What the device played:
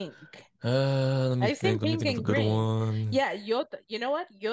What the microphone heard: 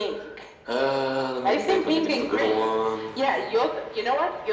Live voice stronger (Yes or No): No